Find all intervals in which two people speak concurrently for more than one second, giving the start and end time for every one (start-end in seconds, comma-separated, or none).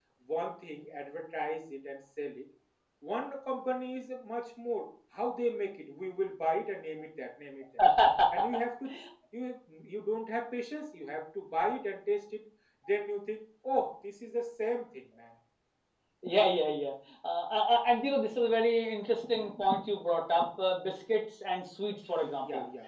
none